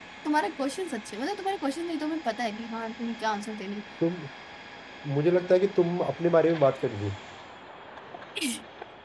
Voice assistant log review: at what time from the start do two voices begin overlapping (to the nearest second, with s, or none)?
none